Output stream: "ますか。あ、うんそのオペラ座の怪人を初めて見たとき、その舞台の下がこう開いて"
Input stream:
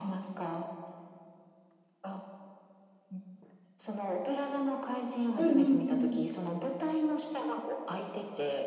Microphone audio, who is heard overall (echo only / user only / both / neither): both